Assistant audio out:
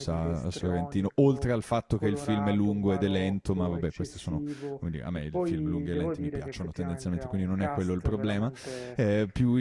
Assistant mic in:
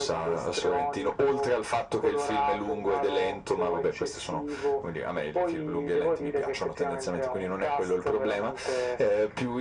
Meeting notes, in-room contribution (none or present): none